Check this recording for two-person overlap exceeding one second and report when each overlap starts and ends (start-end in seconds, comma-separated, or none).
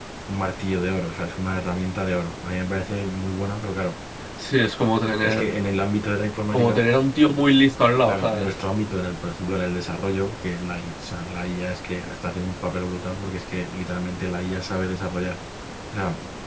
none